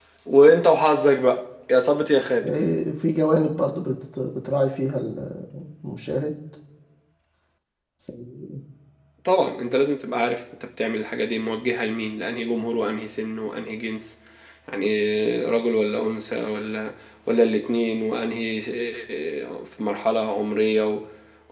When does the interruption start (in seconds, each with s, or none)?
none